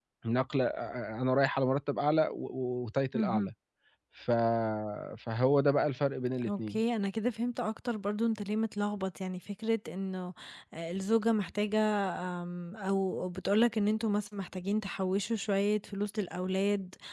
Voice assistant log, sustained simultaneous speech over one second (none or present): none